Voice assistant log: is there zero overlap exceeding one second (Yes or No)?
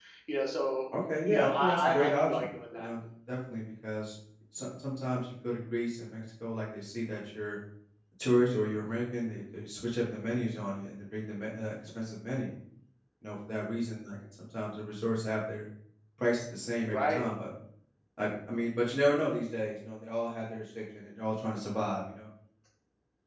No